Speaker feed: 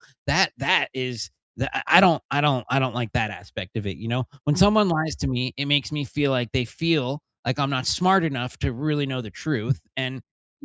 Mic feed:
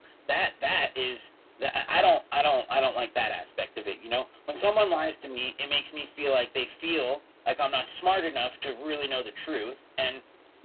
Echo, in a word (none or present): present